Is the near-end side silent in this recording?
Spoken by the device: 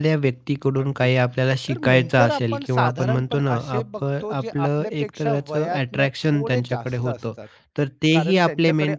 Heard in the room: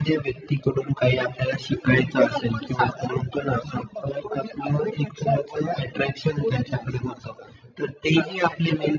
Yes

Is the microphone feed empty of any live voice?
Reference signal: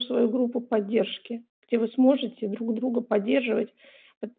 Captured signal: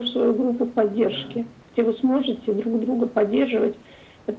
No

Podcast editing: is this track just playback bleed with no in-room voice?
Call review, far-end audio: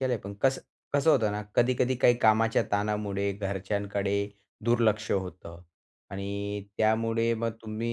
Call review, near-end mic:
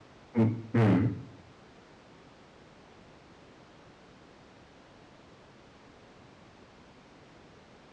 No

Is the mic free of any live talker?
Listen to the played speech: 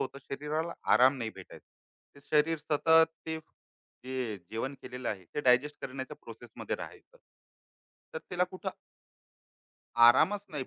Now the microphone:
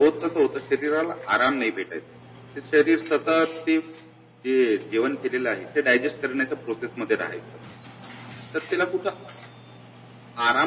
Yes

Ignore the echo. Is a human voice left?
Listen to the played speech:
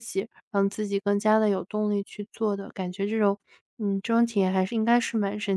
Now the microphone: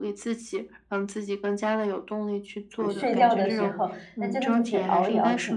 Yes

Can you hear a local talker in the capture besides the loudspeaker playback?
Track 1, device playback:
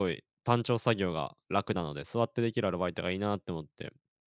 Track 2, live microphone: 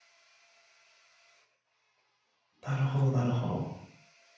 Yes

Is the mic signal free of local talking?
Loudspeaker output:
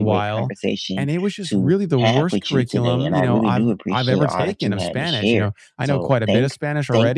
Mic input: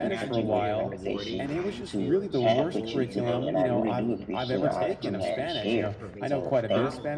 No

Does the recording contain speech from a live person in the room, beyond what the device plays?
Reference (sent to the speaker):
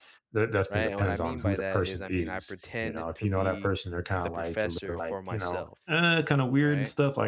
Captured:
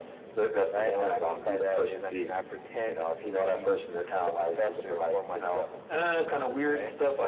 No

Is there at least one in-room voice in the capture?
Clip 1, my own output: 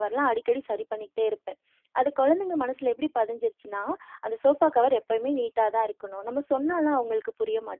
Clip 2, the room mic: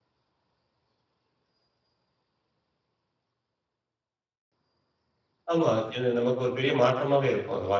Yes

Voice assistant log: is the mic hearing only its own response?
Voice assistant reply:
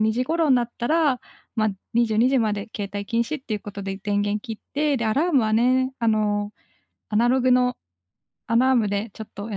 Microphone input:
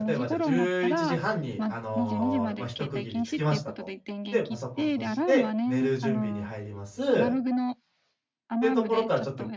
No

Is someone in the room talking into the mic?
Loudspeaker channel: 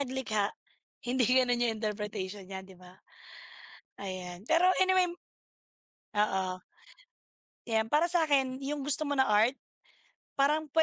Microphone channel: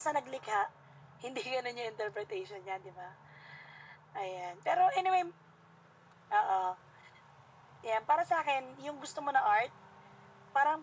No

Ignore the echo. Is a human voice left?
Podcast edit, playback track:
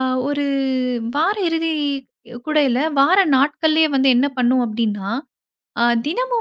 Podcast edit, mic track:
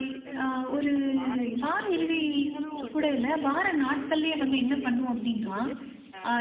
Yes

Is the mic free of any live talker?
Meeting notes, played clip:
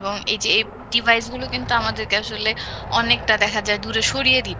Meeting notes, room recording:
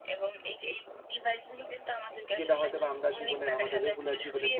No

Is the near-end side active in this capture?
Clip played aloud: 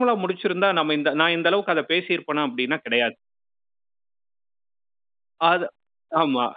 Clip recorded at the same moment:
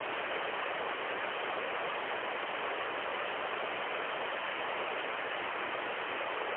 No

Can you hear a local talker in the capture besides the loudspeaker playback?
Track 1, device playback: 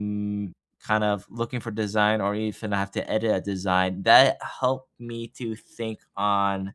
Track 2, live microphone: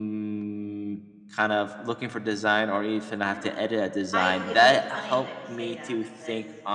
Yes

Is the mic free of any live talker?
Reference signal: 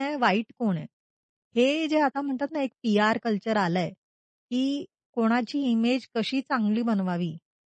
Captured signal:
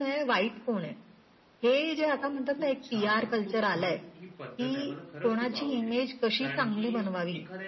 No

